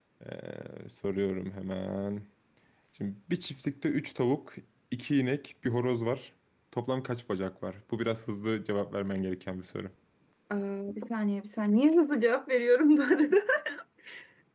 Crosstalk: none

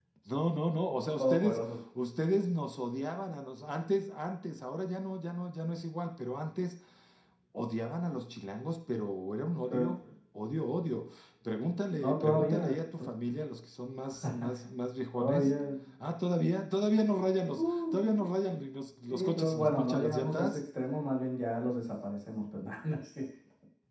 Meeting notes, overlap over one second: present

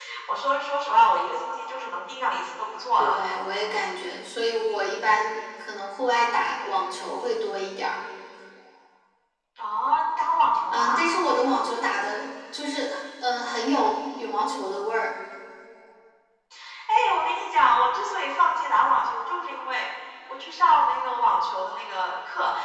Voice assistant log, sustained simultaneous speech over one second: none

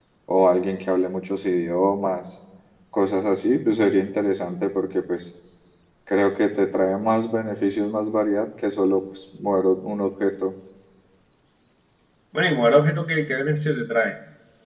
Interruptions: none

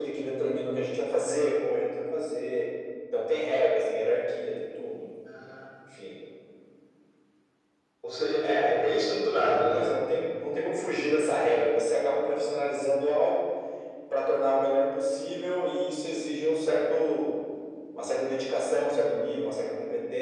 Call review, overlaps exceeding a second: present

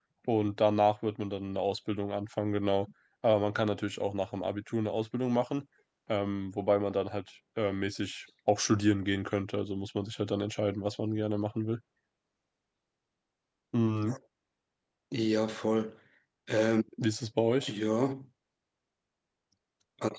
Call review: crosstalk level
none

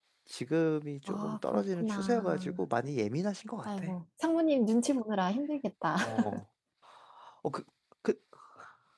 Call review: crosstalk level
present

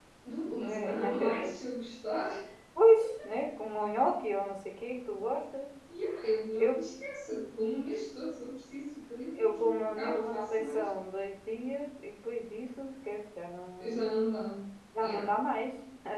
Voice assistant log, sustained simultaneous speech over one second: present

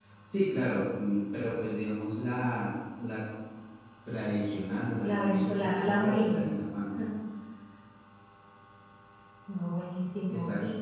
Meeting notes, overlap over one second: present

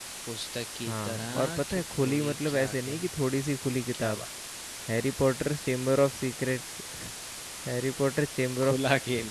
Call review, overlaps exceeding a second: present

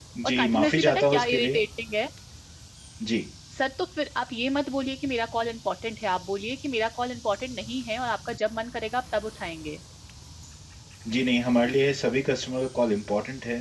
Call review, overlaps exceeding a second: present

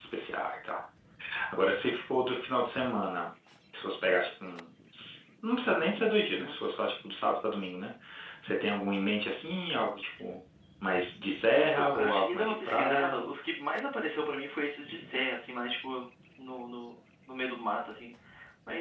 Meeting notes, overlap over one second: present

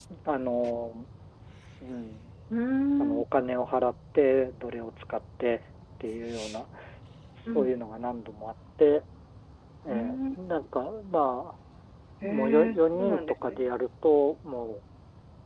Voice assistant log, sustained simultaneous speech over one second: present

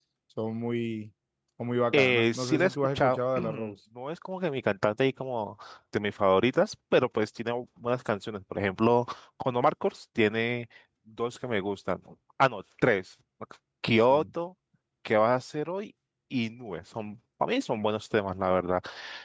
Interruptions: present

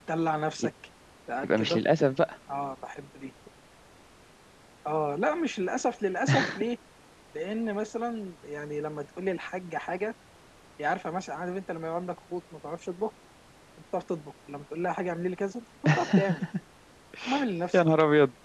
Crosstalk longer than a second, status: none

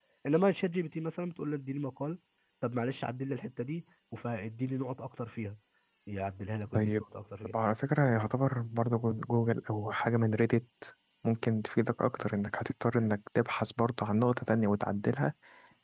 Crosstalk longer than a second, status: none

